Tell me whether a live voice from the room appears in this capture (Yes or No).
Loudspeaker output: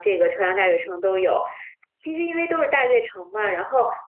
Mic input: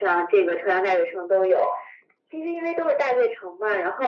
No